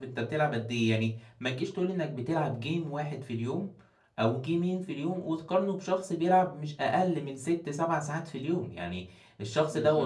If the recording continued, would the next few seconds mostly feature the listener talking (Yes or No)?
No